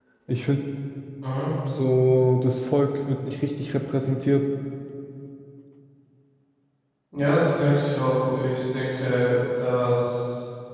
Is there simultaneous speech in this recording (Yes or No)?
No